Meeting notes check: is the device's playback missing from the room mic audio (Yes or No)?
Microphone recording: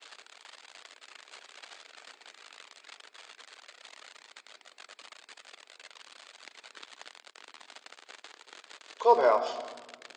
Yes